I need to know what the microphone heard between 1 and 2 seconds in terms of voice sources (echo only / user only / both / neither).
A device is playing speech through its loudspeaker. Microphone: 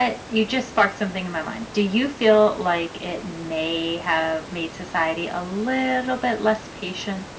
echo only